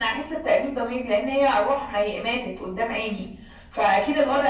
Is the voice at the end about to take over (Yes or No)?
No